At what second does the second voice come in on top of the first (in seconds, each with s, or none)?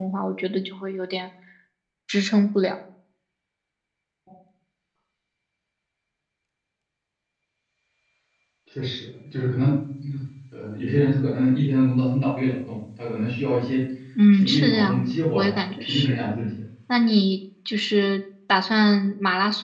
14.3 s